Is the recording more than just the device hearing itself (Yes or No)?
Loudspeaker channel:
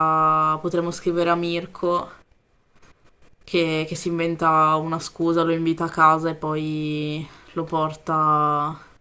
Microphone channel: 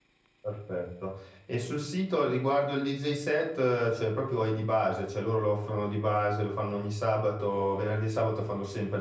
Yes